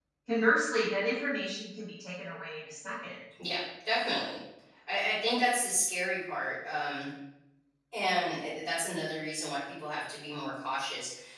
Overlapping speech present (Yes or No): No